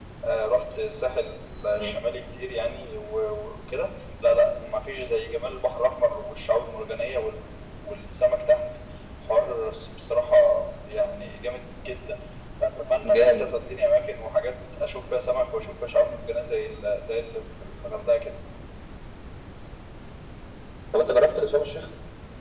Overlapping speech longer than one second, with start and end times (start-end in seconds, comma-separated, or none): none